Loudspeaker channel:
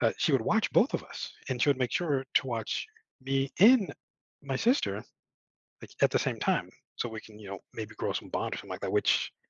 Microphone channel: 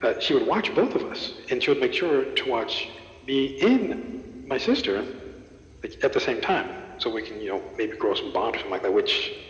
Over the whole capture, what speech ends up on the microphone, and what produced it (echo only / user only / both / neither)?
echo only